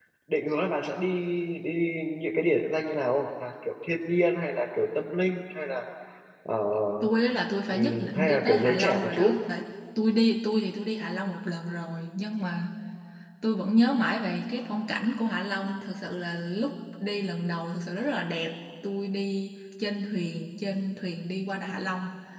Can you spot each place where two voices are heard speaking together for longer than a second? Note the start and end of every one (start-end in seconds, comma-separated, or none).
7.7-9.3